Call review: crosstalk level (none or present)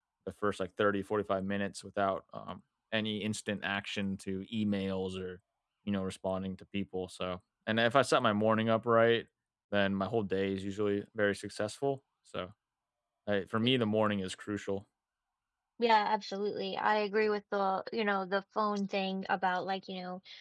none